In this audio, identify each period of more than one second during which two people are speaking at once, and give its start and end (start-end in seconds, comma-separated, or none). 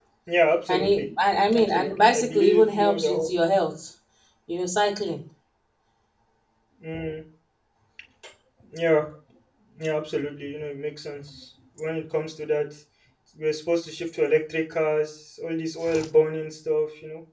1.5-3.1